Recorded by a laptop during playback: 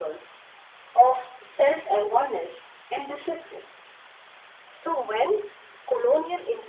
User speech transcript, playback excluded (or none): none